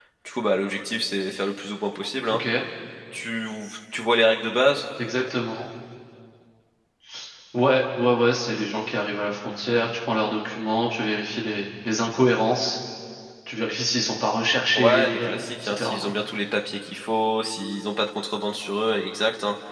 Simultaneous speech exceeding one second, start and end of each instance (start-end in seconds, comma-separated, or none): 14.8-16.1